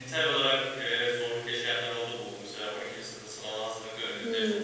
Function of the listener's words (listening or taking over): listening